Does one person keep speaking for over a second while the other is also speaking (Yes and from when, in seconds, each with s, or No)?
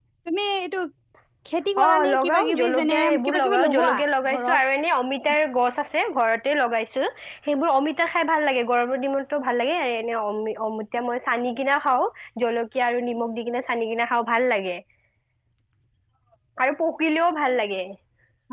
Yes, from 1.8 s